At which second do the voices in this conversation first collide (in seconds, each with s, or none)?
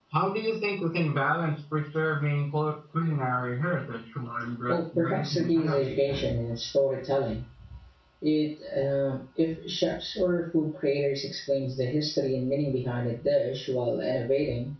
4.7 s